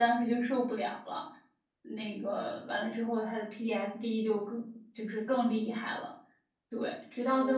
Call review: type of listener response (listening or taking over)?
listening